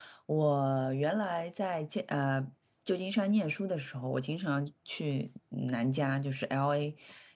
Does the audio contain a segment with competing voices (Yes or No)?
No